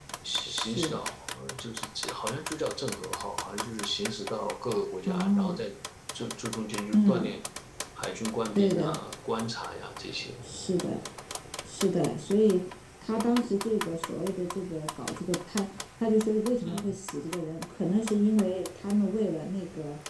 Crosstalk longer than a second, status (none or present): none